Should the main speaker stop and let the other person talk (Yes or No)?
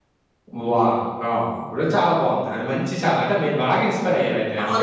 Yes